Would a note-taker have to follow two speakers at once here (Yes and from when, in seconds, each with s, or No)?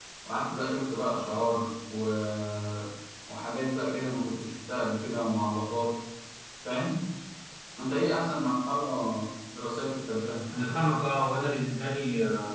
No